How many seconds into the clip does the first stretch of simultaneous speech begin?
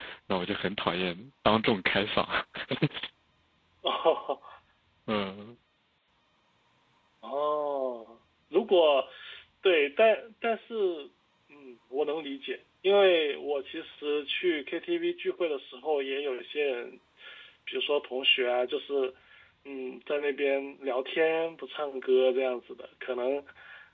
none

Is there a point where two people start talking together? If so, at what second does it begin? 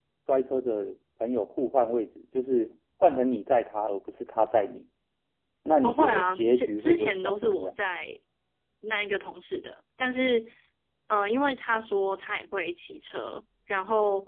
5.8 s

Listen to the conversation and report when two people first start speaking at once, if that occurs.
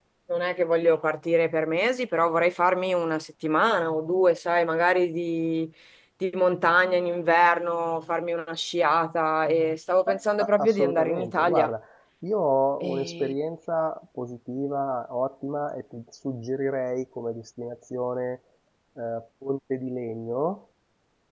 10.1 s

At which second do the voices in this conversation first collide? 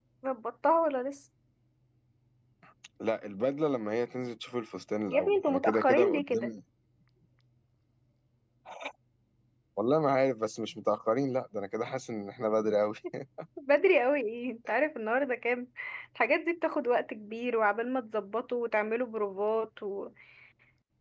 5.1 s

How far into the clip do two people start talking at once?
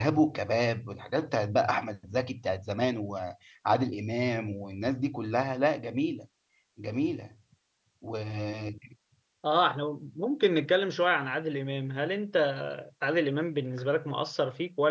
none

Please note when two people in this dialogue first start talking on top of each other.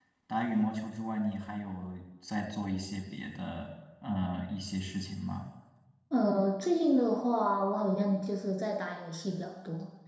none

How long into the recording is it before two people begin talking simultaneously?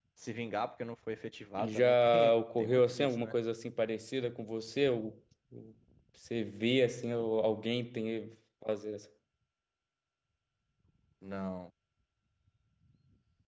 1.6 s

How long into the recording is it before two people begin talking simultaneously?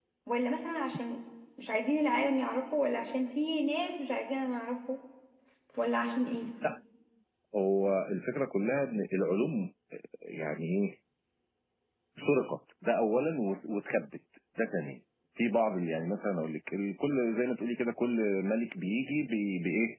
none

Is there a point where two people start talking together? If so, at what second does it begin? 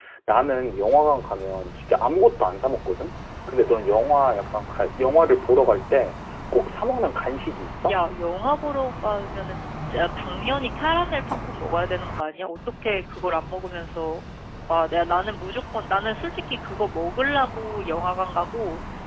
none

